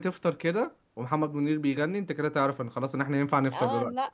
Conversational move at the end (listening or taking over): taking over